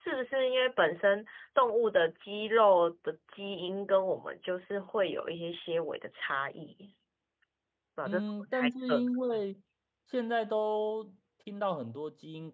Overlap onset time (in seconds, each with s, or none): 8.1 s